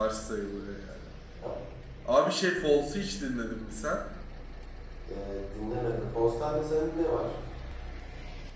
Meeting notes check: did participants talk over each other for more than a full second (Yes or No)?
No